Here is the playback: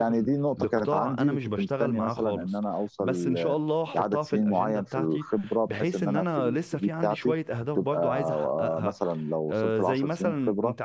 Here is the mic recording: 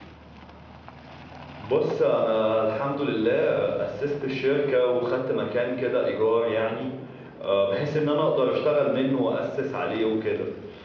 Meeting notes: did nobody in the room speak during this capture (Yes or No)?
No